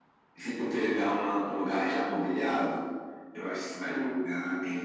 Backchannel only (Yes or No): Yes